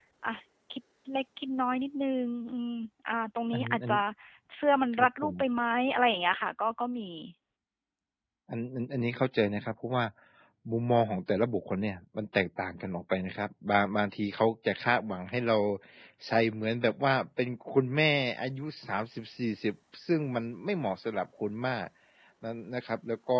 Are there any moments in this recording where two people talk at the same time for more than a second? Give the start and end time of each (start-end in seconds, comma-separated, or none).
none